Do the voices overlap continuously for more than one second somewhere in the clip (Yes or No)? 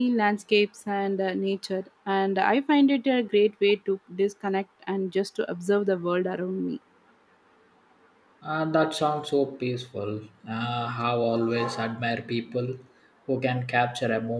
No